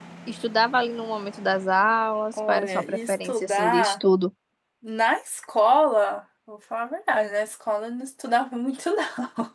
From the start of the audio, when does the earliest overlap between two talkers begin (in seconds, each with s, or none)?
2.3 s